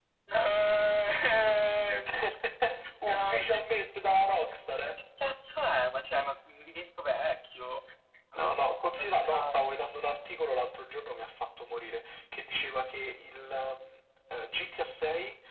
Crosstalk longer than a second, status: present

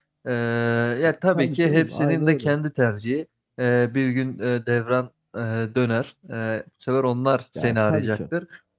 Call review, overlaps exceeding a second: present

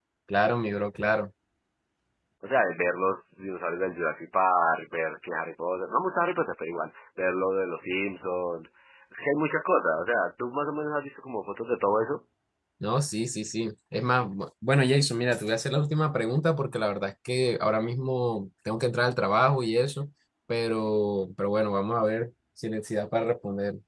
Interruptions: none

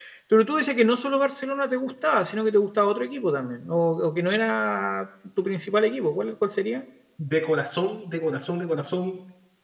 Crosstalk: none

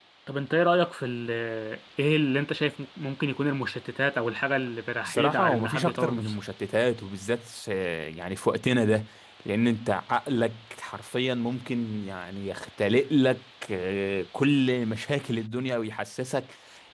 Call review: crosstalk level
present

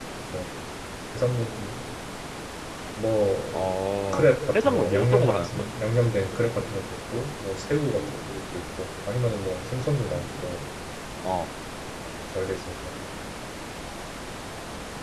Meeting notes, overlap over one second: present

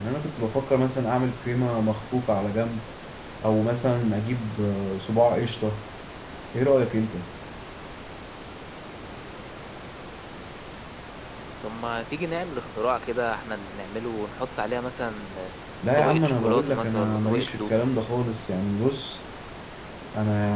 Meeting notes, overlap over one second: present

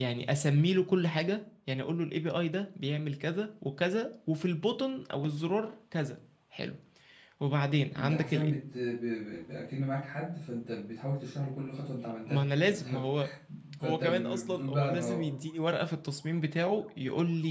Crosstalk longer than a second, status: present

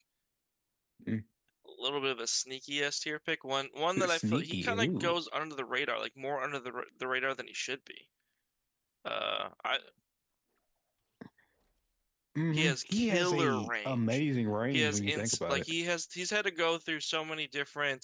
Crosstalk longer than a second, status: present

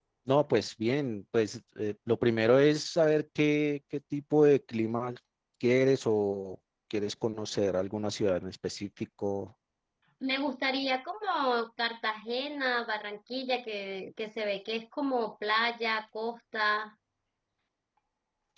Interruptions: none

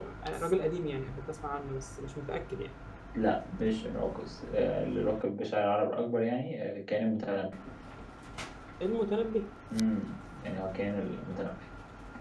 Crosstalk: none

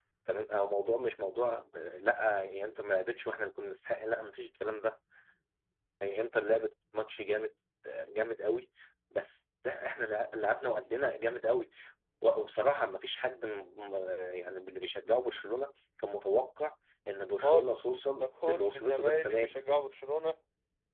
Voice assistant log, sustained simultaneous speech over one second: present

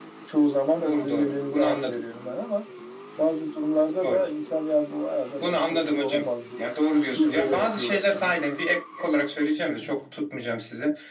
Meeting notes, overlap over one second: present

